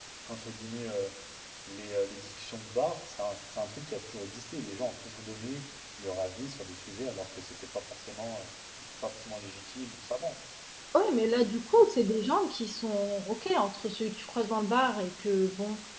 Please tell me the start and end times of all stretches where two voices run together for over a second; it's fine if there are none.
none

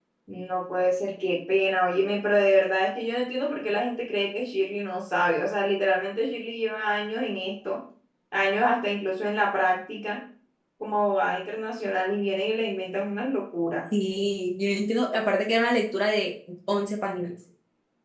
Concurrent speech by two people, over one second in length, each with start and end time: none

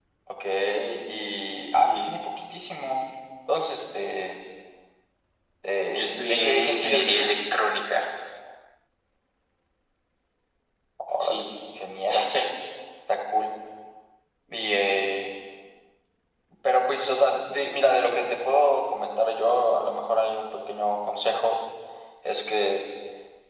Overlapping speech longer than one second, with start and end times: 5.9-7.3

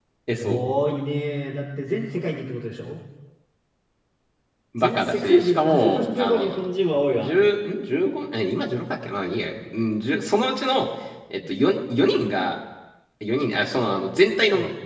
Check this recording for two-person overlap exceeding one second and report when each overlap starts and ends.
4.8-6.6

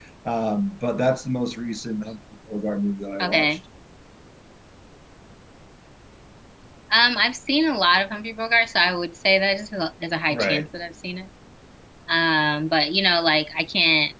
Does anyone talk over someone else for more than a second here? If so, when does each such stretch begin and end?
none

